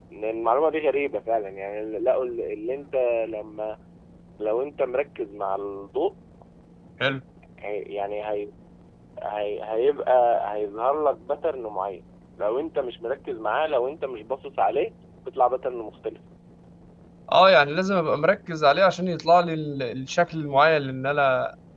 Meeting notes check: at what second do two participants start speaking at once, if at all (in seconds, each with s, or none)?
none